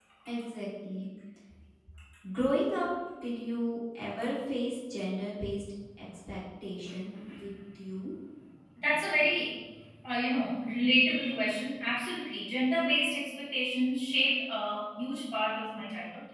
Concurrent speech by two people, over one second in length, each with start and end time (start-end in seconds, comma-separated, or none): none